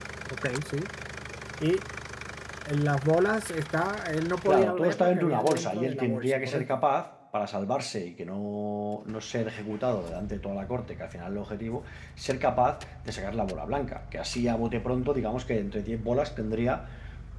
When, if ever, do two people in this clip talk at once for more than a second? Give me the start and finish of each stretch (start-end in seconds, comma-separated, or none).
4.5-6.7